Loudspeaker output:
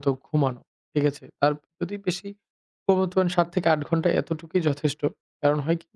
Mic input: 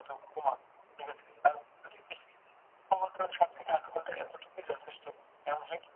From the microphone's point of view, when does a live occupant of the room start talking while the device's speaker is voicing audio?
none

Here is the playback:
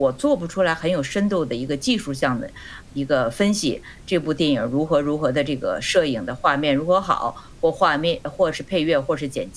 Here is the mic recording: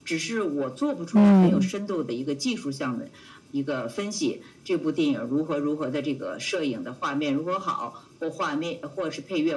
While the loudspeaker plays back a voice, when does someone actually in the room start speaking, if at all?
1.1 s

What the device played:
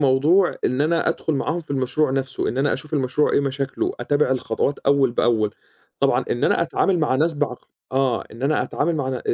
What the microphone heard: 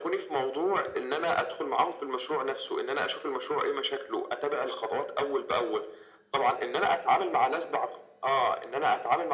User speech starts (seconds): none

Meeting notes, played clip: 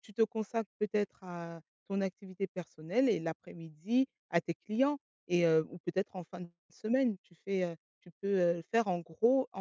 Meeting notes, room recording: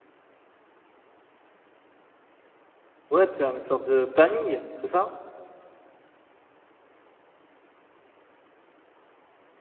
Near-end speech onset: 3.1 s

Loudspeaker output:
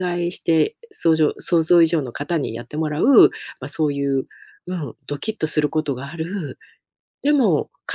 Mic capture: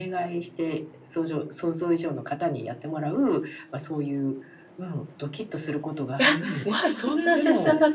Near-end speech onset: 6.2 s

